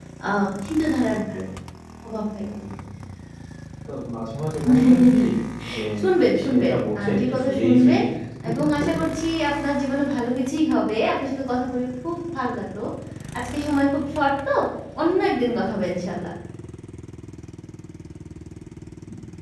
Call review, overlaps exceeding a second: present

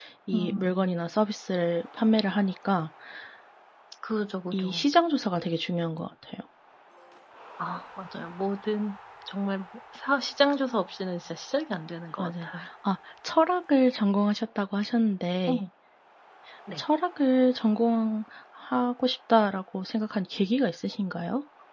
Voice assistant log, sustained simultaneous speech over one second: none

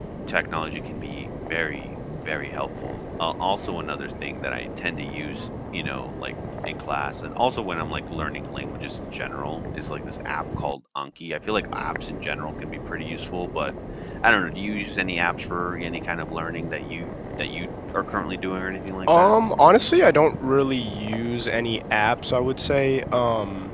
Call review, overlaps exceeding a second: none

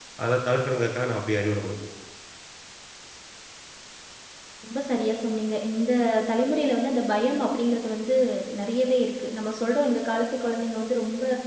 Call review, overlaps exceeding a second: none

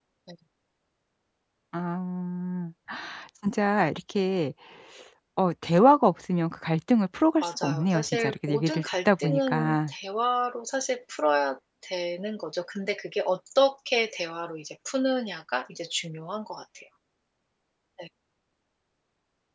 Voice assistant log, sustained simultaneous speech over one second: present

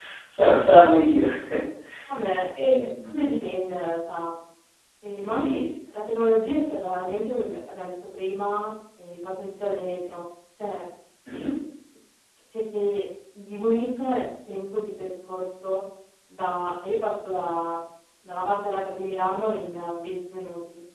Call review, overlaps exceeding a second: none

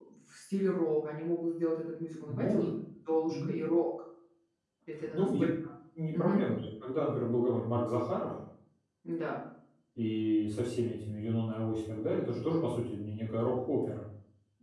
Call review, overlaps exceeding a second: none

